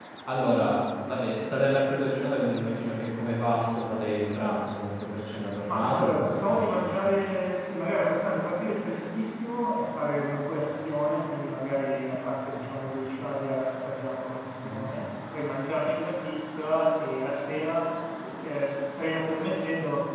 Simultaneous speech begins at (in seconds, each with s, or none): 5.7 s